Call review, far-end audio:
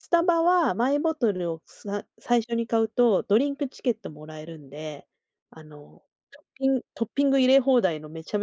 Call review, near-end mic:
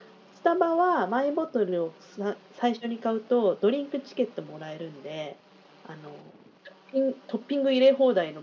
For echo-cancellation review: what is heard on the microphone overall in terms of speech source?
echo only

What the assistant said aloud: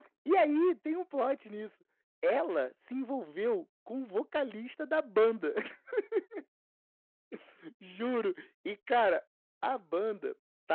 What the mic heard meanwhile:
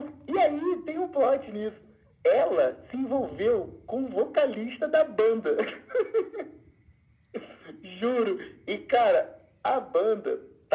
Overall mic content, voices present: echo only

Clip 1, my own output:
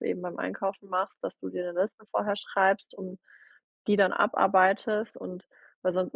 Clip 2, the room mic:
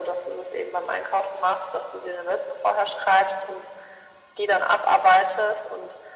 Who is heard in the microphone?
echo only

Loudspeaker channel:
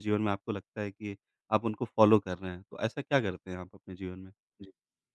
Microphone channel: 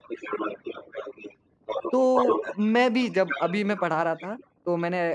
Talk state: both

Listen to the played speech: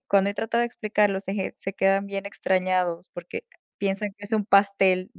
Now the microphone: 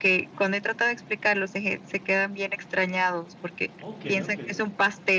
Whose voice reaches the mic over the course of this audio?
both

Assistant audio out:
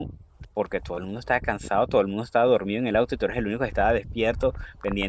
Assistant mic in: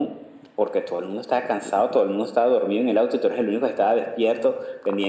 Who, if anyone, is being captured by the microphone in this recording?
echo only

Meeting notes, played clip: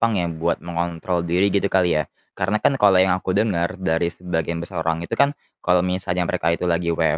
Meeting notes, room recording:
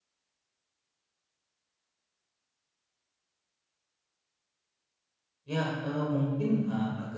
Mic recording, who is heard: user only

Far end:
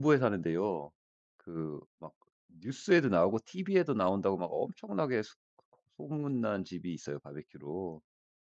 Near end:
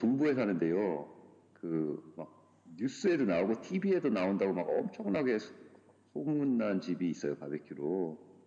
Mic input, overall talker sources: echo only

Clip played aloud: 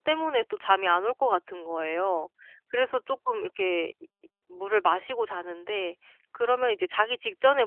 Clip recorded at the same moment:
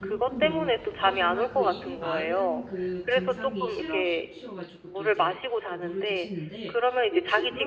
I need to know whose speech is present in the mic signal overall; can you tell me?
both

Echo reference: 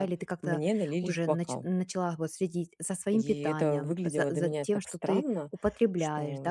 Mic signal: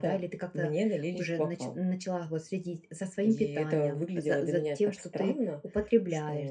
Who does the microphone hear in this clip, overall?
echo only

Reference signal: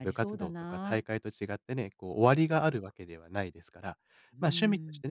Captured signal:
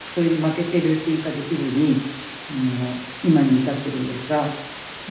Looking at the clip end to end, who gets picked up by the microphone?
user only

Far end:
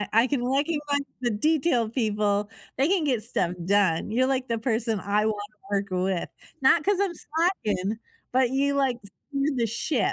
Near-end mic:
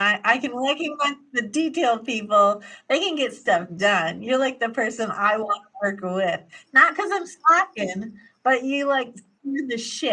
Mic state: echo only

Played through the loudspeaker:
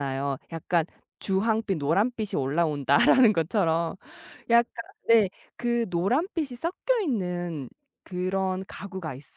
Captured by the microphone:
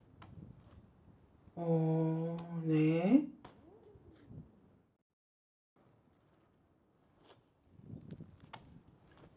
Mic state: user only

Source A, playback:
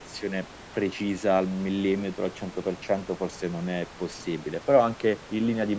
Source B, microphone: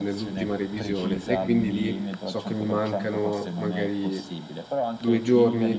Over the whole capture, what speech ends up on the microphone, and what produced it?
both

